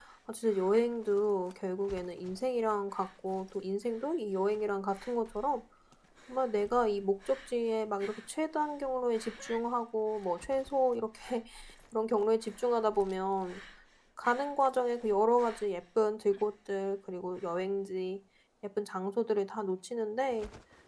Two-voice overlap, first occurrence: none

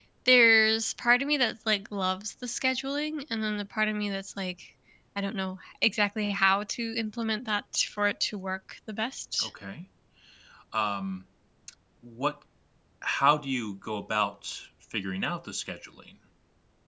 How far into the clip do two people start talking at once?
none

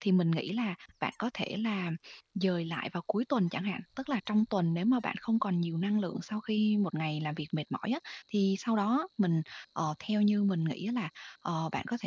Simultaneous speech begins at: none

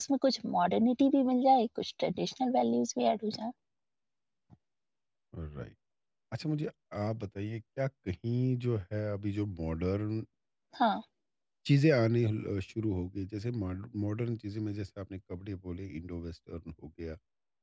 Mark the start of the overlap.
none

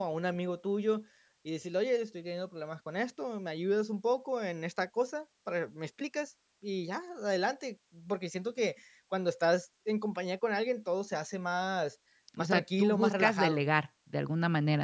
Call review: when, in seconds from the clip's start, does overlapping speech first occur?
12.4 s

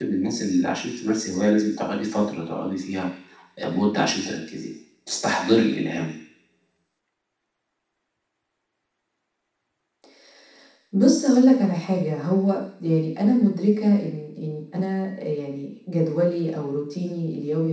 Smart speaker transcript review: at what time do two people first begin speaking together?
none

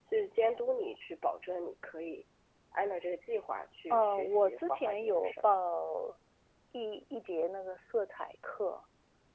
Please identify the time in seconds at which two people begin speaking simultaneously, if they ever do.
3.9 s

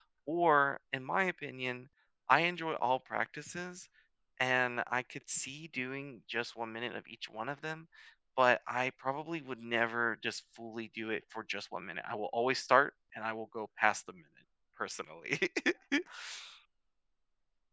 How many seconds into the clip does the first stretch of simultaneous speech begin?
none

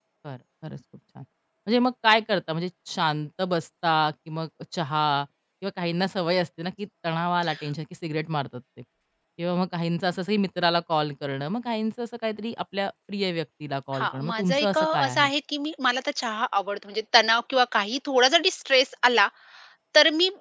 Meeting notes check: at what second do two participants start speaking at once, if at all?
13.9 s

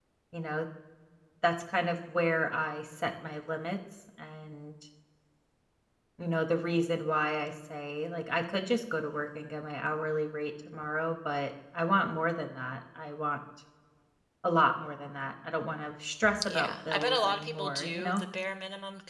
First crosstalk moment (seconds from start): 16.4 s

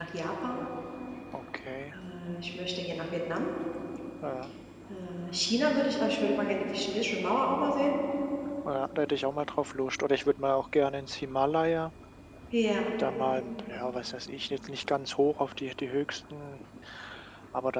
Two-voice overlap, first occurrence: none

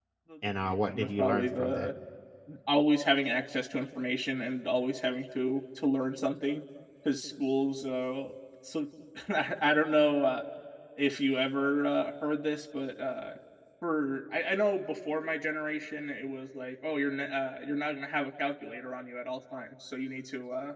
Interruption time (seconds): 0.6 s

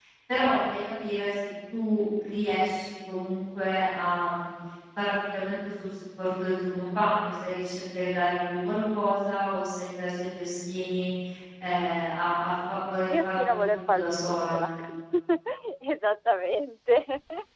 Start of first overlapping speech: 13.1 s

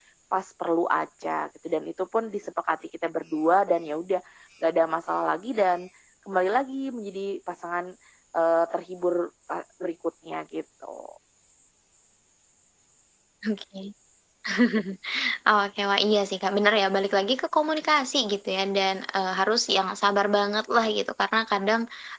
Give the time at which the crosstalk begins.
none

